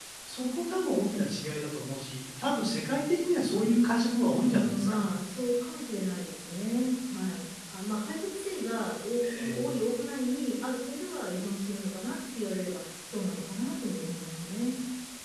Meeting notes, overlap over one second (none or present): none